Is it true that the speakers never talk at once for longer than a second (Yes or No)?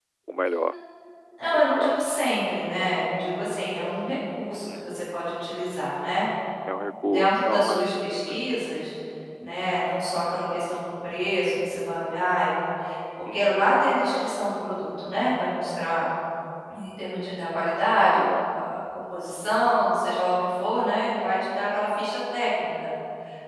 No